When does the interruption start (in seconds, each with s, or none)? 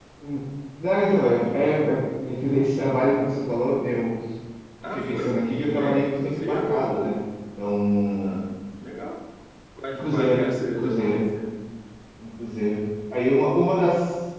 4.9 s